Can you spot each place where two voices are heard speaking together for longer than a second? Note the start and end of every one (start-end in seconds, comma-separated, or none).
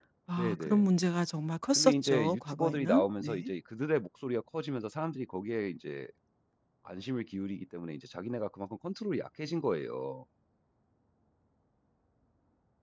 1.8-3.5